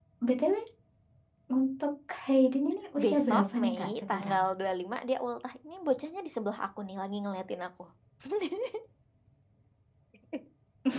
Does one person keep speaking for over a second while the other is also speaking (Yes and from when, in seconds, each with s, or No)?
Yes, from 3.0 s